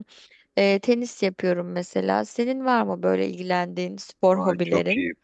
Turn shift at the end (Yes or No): Yes